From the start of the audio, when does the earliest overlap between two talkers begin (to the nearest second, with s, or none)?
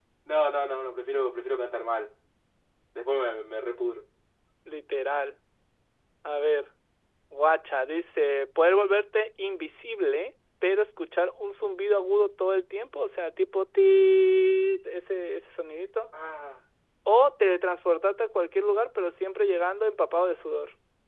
none